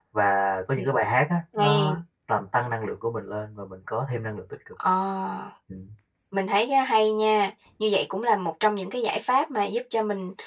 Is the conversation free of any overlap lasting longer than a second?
Yes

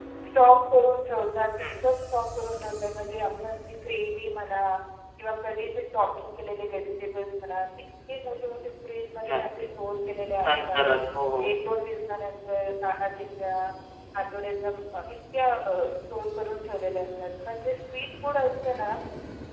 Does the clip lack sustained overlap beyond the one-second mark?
Yes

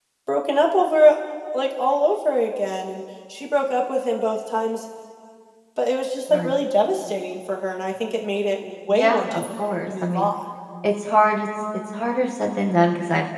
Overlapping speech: Yes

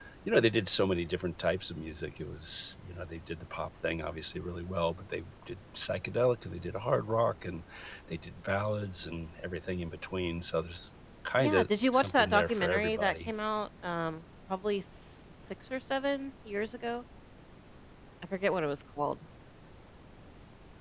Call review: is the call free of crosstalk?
No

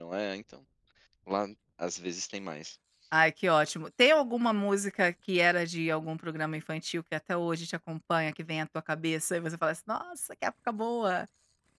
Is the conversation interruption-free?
Yes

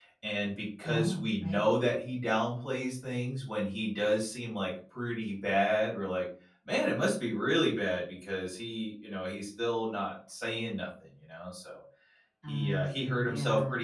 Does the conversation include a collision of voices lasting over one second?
Yes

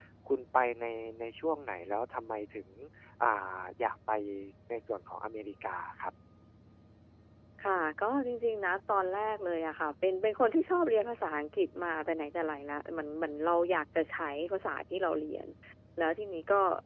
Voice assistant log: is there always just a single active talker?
Yes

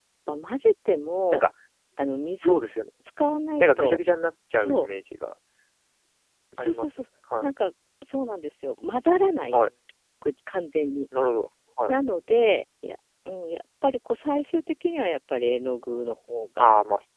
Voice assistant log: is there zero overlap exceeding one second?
Yes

